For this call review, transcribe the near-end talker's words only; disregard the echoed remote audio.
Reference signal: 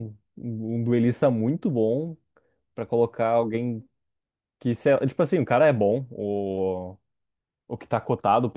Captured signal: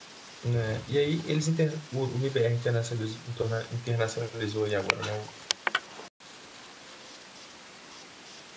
Né? E aí eles inter... o, o MBR internacionalizou, internacionalizou aí agora, né?

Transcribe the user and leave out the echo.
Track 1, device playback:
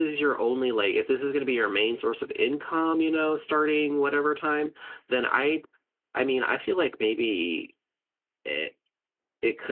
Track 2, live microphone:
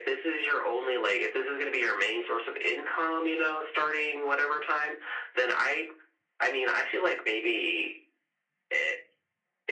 none

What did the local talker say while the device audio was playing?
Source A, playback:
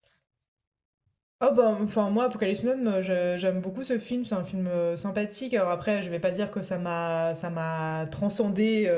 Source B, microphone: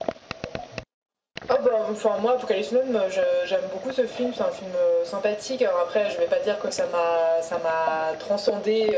none

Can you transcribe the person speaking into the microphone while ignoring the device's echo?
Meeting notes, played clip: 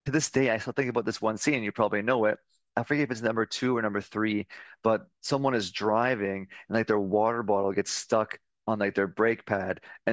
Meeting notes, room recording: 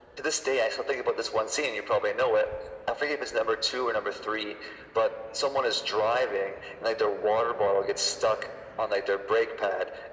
none

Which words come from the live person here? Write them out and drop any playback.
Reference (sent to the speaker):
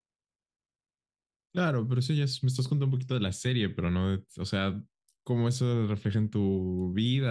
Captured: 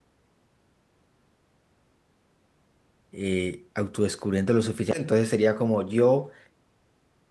eh, autodescubriendo lo suficiente. Entonces sería como yo

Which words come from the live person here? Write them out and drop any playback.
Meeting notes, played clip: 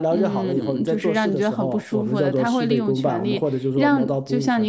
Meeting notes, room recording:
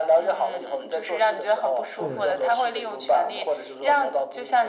对，

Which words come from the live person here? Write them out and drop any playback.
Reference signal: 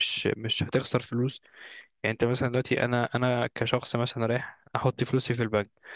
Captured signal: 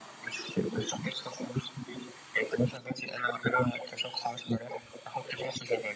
none

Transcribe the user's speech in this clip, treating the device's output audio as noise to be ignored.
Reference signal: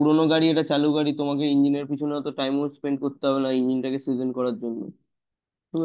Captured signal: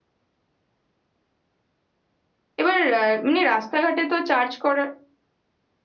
এবার আহ, এমনি রাস্তাঘাটে তো চার্জ করার

